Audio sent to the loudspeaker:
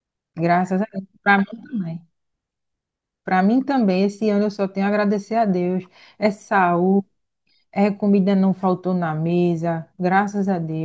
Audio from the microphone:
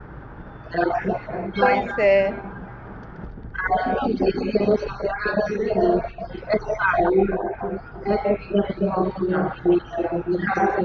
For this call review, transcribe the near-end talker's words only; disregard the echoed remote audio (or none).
Pois é,